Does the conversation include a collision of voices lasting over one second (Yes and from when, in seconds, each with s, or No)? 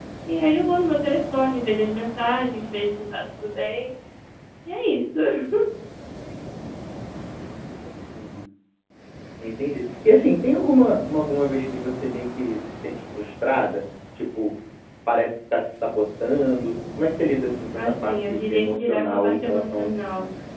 Yes, from 17.8 s